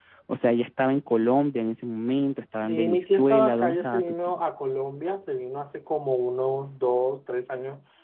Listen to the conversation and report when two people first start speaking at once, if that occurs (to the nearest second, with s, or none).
3 s